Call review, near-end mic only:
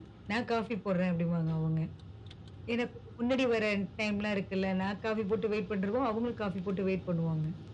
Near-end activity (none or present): none